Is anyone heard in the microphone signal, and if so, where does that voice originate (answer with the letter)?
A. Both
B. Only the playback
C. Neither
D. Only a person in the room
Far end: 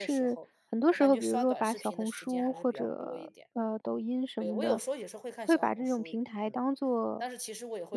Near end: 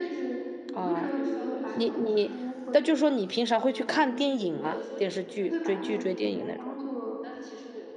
A